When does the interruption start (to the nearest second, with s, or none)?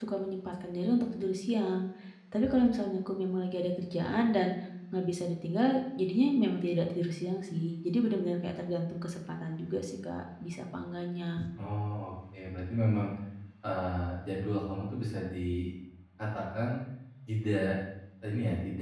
none